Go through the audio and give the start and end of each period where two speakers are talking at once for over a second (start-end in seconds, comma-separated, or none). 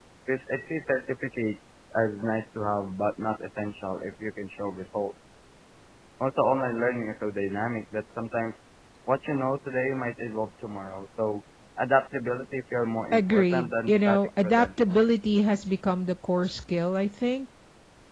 13.1-14.9